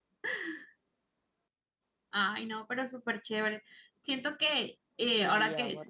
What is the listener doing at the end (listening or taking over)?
taking over